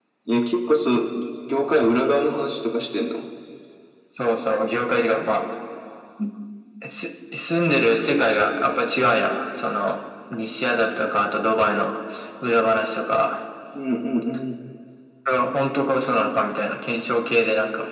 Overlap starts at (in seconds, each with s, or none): none